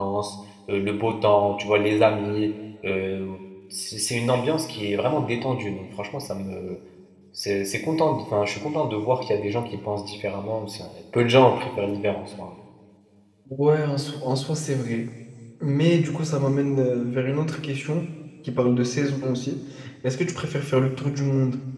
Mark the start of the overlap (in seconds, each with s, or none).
none